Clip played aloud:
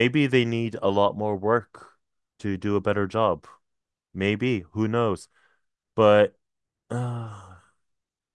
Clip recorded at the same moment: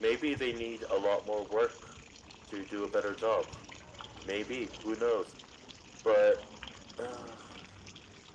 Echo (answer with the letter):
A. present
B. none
A